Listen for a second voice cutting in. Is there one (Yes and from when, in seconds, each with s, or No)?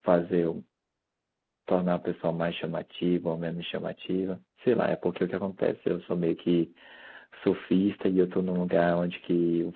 No